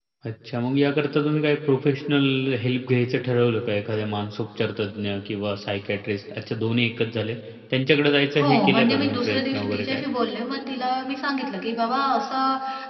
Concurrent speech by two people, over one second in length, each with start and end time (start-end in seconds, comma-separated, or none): 8.4-10.0